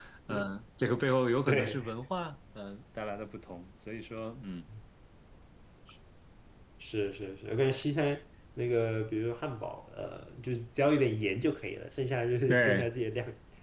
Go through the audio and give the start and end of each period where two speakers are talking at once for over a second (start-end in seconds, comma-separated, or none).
none